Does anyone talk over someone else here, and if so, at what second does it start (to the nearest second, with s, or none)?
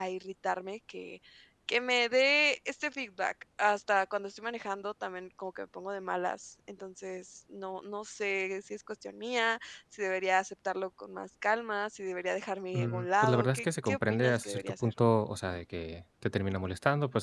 13 s